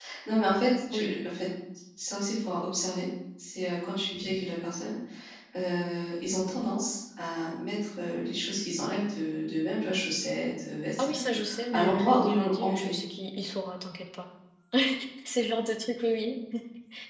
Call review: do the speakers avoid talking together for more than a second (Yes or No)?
No